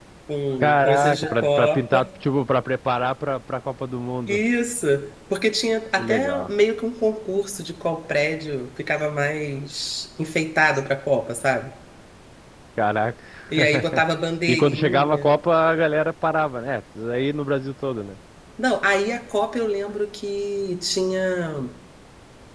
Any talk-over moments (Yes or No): Yes